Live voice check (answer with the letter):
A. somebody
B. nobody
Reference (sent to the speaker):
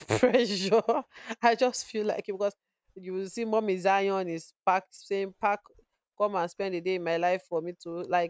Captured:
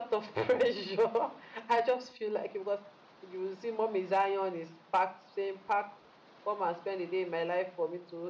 B